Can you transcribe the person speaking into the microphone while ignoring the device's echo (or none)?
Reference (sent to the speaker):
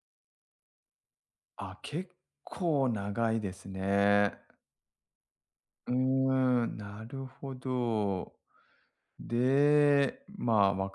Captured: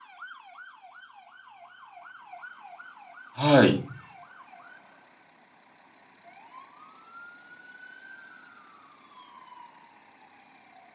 はい。